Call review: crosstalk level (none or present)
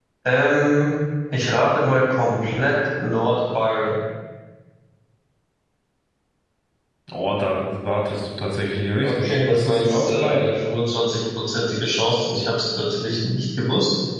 present